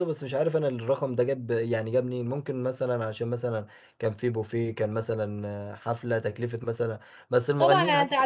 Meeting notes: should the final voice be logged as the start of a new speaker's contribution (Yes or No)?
Yes